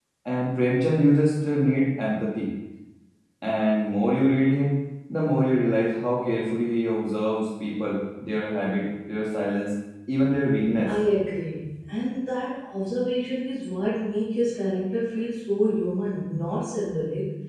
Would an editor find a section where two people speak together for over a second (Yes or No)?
No